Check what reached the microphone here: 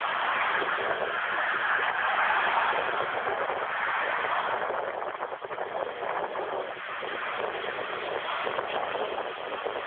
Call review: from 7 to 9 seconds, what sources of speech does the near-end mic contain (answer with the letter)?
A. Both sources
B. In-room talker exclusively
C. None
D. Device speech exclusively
C